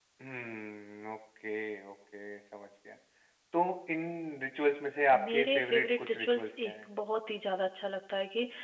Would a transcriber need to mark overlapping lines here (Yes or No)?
Yes